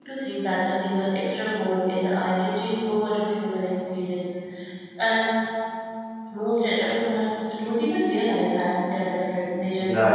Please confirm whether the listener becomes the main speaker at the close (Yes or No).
Yes